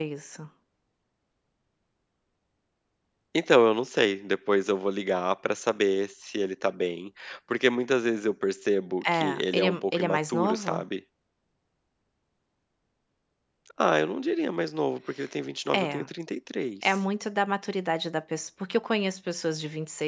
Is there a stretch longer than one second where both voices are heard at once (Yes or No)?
Yes